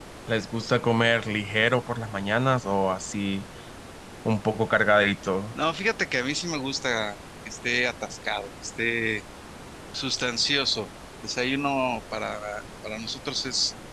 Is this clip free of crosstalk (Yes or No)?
Yes